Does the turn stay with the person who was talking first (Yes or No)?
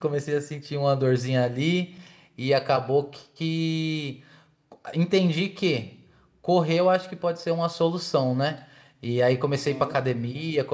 Yes